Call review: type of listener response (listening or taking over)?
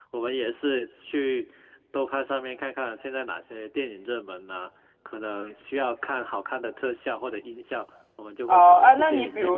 taking over